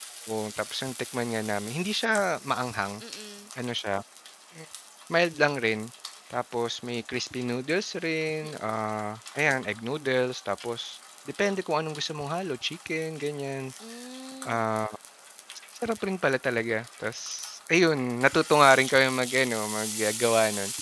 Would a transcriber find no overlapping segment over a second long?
Yes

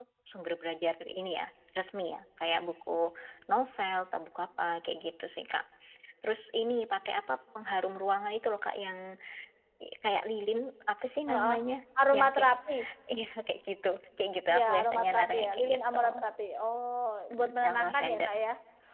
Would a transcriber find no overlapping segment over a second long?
No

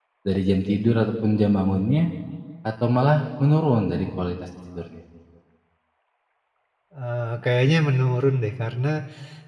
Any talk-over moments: No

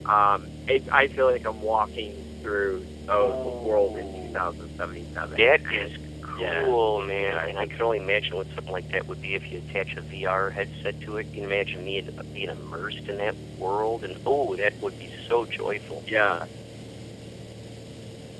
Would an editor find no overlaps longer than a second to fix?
No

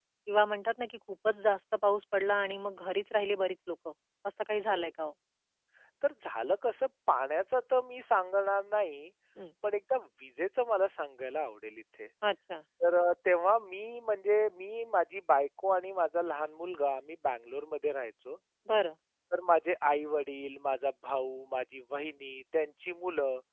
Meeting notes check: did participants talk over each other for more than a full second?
No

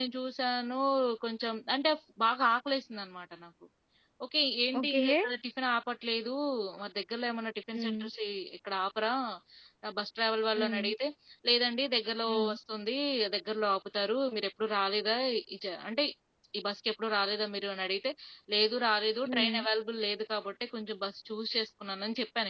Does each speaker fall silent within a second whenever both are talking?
Yes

